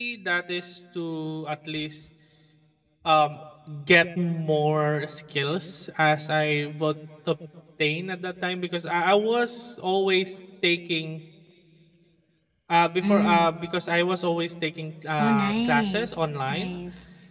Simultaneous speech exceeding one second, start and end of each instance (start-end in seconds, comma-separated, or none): 15.2-16.8